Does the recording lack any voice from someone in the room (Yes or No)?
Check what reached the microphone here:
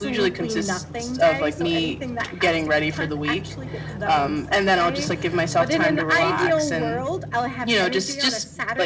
Yes